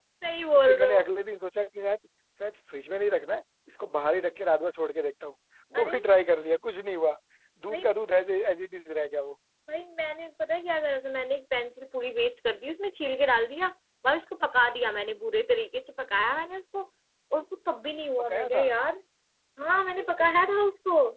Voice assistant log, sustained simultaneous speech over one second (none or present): none